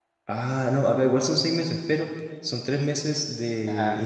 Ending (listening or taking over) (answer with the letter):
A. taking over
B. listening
B